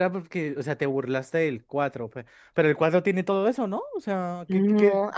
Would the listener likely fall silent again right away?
No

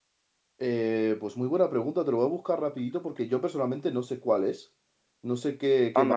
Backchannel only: No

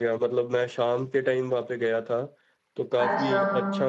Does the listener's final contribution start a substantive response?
No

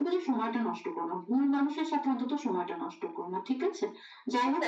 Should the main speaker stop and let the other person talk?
No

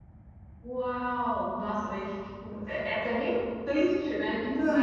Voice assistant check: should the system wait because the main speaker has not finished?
No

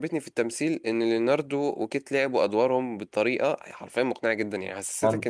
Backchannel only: Yes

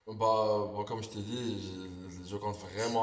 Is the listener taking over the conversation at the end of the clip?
Yes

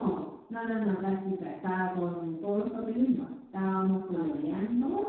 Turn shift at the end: No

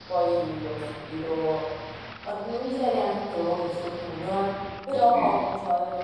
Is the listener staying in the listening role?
Yes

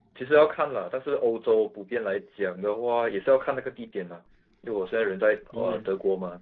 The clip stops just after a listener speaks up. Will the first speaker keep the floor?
Yes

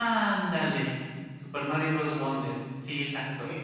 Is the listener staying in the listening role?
No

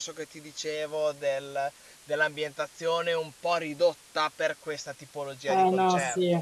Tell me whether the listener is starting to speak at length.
Yes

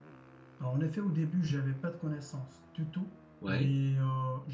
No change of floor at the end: Yes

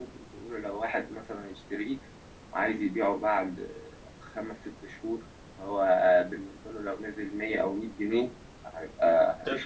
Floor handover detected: No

